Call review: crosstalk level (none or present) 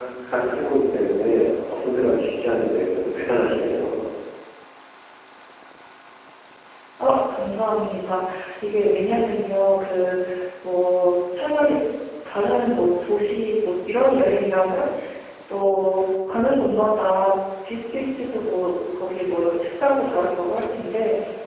none